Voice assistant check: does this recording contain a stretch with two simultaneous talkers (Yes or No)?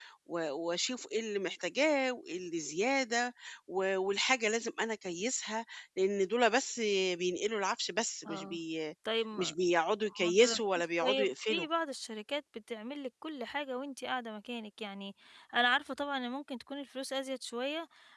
Yes